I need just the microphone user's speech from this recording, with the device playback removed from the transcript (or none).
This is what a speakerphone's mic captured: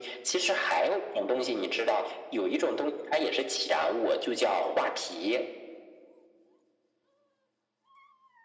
none